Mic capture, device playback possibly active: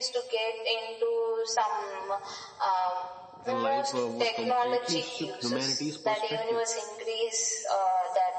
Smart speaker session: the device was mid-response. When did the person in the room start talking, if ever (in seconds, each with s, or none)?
3.4 s